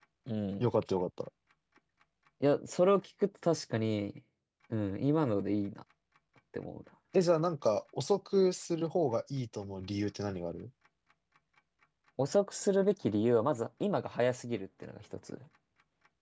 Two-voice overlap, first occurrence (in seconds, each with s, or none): none